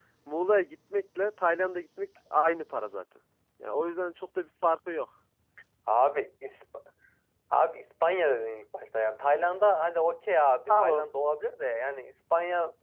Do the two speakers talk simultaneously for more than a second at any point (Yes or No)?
No